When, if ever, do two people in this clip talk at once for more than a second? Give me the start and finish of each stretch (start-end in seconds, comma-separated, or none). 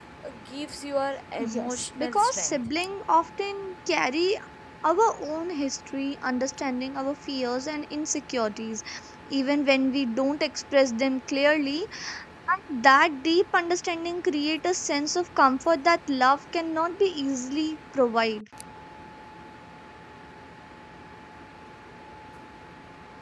1.5-2.8